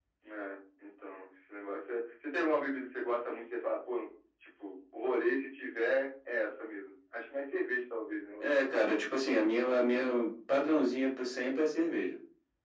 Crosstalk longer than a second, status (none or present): none